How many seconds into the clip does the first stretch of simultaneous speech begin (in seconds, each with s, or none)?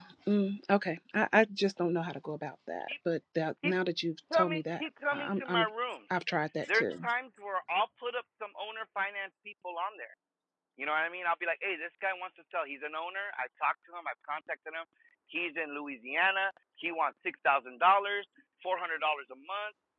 4.3 s